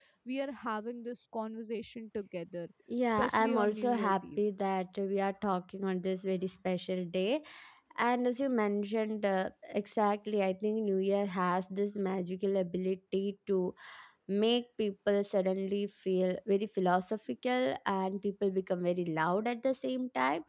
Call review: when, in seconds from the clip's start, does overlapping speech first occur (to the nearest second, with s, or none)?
3 s